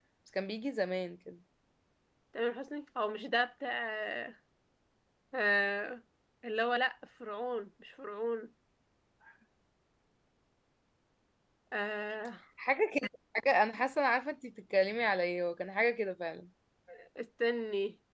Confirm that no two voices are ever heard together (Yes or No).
Yes